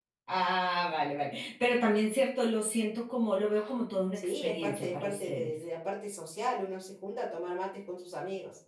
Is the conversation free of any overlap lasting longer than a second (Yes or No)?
No